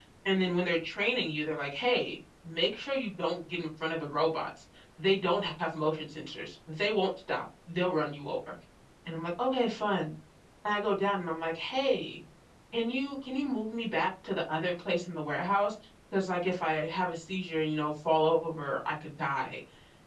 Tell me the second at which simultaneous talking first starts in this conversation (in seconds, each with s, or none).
none